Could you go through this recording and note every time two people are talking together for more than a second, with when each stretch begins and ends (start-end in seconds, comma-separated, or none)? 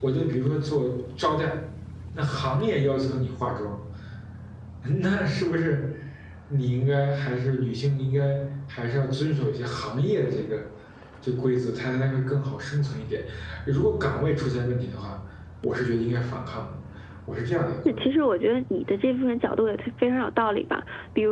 none